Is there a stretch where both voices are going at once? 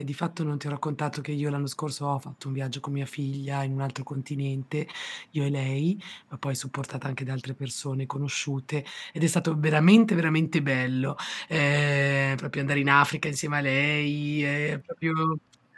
No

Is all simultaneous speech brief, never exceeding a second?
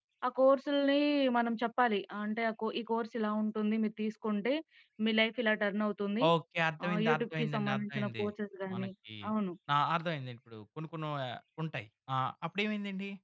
No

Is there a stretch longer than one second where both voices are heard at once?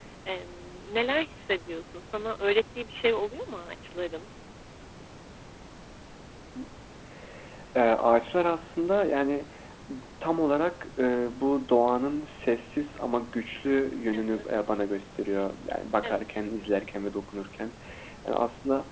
No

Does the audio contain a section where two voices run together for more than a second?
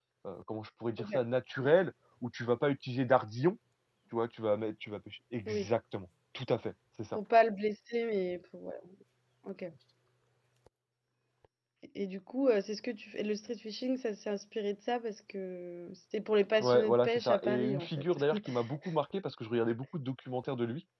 Yes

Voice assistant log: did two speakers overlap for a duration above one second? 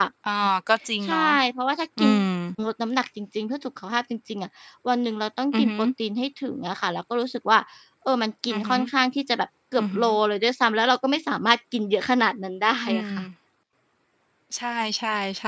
No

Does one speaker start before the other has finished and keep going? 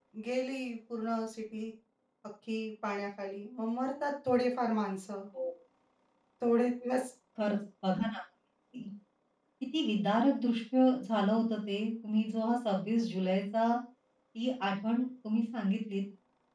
No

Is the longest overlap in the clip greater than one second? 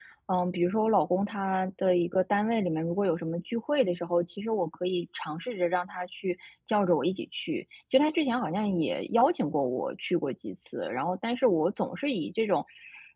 No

